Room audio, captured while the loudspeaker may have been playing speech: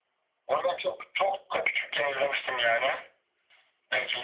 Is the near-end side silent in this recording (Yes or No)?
Yes